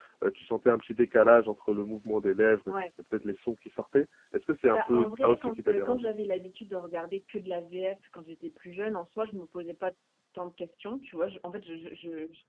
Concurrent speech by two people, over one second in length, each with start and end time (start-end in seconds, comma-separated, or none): 4.7-6.1